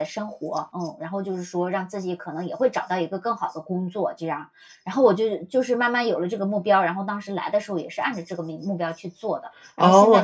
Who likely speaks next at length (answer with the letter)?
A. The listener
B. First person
A